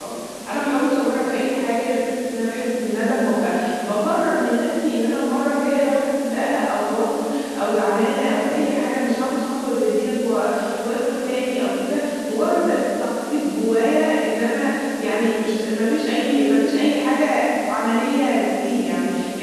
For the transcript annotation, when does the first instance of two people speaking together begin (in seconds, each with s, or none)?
none